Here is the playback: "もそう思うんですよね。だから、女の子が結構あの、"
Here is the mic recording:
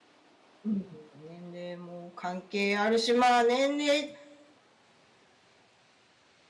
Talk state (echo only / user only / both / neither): user only